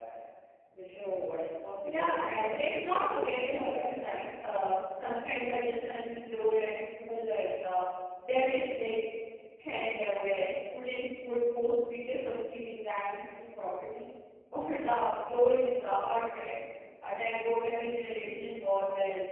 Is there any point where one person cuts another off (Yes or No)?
Yes